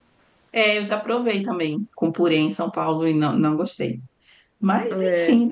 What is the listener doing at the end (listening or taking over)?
listening